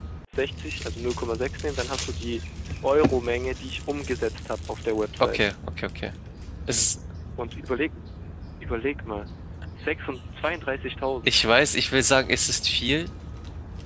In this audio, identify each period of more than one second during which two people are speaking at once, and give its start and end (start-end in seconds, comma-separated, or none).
none